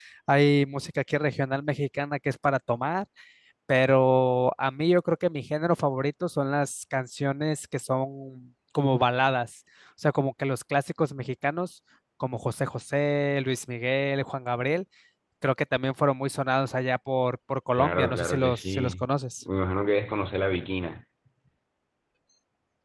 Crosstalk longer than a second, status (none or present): present